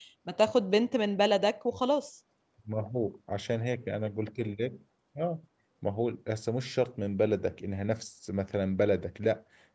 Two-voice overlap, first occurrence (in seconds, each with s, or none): none